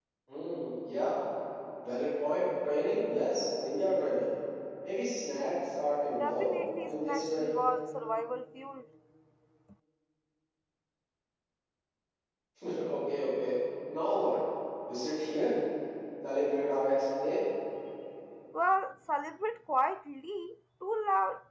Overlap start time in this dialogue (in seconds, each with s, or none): 6.1 s